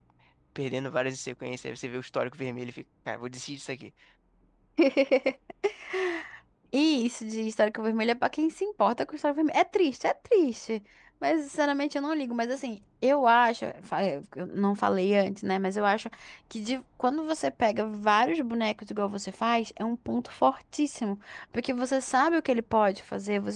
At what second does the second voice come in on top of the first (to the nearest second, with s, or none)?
none